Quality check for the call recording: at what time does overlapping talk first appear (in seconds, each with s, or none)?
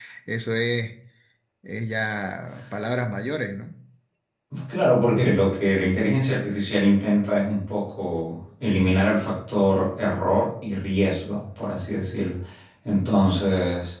none